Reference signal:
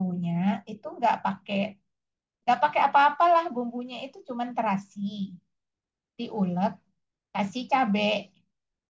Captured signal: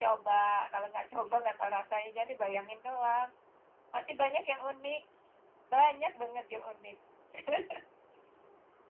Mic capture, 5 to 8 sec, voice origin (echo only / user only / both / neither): user only